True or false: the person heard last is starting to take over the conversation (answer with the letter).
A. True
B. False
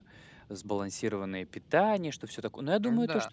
B